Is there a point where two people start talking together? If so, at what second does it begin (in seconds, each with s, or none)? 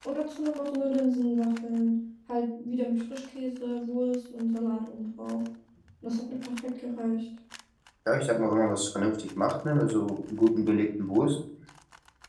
none